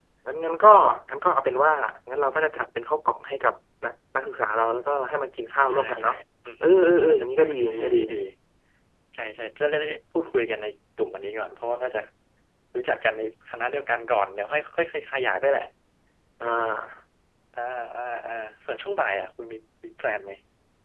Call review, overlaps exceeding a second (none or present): present